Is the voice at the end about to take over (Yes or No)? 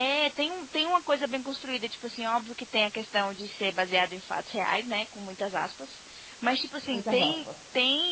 No